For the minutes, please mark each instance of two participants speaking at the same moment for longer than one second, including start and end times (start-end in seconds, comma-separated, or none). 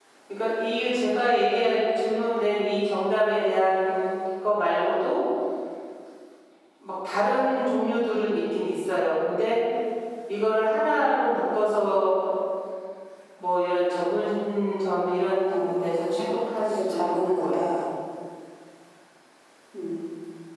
15.7-17.8